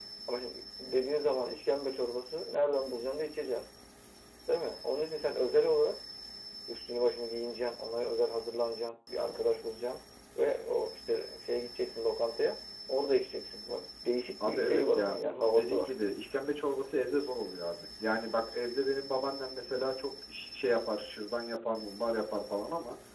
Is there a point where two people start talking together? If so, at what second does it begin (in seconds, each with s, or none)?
14.4 s